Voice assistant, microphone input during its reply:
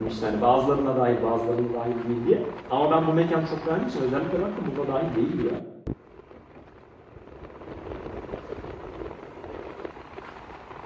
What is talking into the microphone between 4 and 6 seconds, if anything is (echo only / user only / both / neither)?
user only